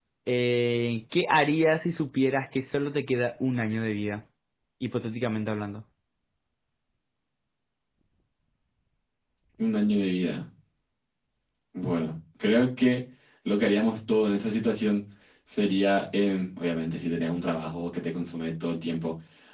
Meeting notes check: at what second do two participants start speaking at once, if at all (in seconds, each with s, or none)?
none